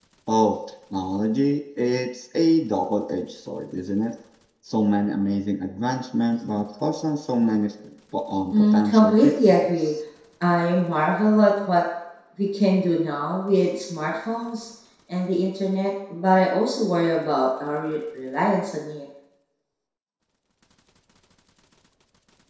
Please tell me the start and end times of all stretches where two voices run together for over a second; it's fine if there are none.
8.5-9.9

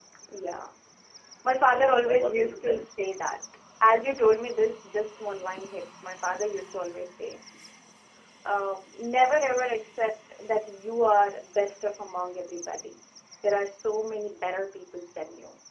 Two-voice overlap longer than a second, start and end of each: 1.6-2.9

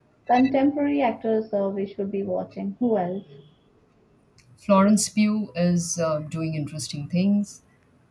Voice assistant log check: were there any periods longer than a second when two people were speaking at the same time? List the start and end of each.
none

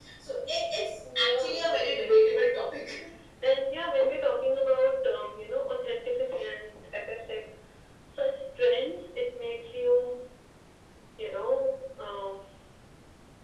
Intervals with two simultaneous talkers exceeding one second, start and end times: 1.1-2.5

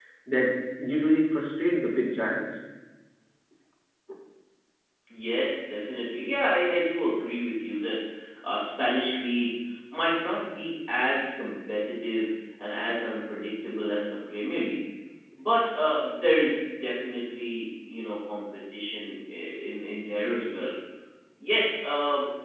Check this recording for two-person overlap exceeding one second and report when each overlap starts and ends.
none

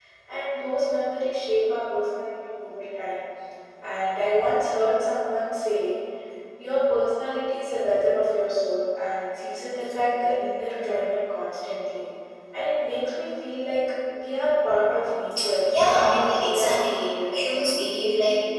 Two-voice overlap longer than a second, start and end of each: 15.7-17.5

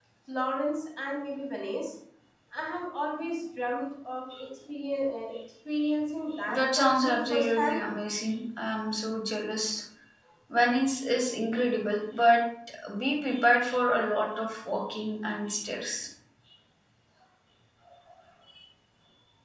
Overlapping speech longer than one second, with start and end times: 6.5-7.8

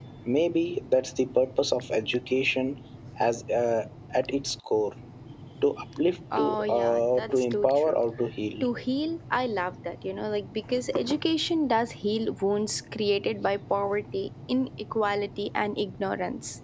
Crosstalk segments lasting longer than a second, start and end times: 6.4-8.0

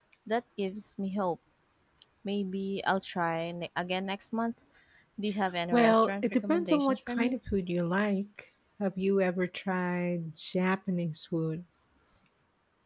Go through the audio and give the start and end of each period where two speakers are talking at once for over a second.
5.7-7.4

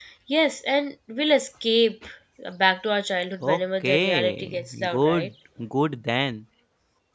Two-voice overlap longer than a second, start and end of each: 3.4-5.3

